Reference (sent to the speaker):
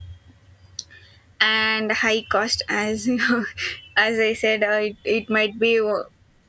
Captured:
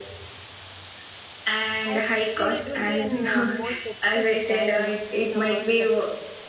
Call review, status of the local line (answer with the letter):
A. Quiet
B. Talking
B